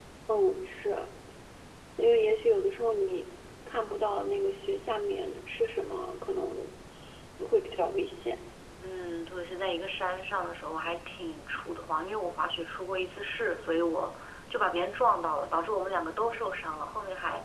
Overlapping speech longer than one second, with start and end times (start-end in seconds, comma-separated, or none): none